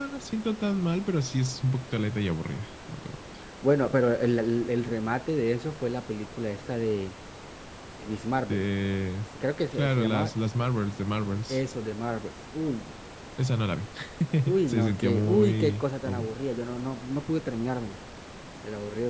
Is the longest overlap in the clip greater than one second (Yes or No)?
Yes